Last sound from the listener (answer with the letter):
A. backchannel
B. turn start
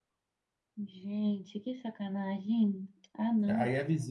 B